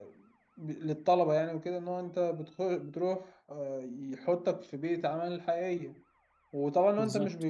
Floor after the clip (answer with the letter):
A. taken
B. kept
B